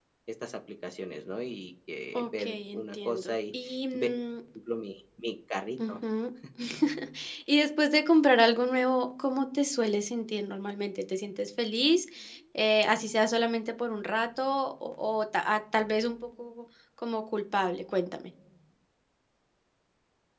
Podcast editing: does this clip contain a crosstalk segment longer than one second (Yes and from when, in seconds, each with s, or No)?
Yes, from 2.1 s